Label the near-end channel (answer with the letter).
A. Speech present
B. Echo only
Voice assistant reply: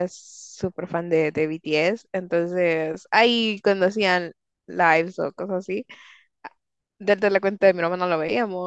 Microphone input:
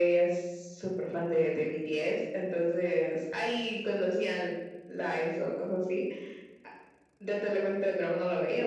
B